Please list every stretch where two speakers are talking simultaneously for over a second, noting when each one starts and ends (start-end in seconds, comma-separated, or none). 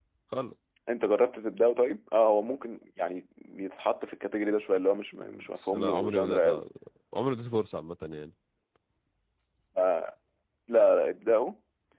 5.2-6.6